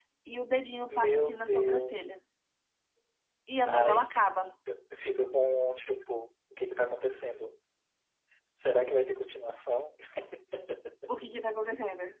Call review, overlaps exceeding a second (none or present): present